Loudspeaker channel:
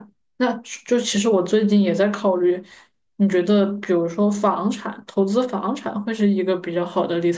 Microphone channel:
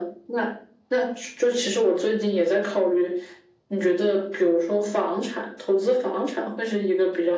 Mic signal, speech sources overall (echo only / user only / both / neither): echo only